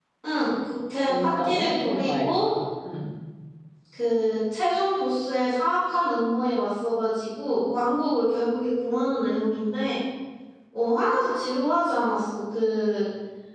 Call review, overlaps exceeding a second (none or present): present